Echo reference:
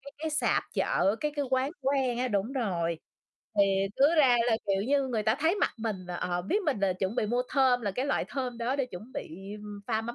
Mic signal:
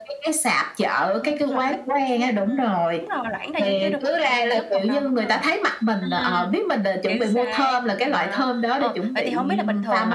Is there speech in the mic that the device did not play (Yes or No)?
Yes